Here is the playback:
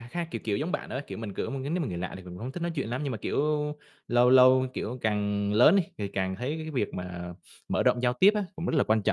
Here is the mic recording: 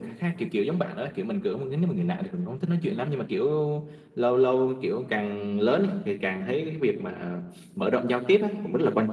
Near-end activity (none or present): none